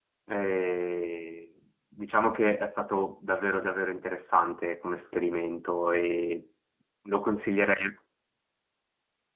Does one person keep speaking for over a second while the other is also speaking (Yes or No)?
No